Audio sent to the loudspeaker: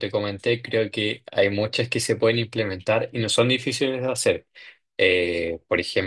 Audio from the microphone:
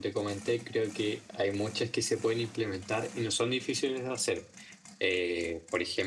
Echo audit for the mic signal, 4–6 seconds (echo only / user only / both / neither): echo only